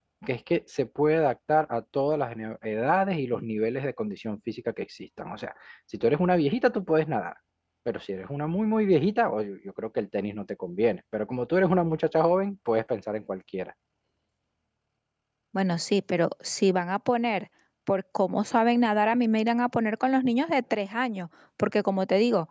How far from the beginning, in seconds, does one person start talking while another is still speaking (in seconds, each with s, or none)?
none